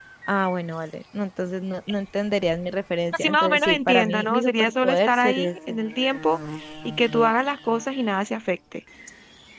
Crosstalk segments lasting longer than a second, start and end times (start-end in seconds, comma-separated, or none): 3.2-5.8